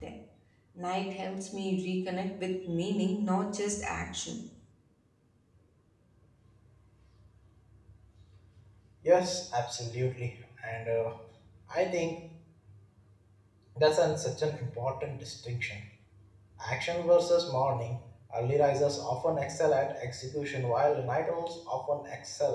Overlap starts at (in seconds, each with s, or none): none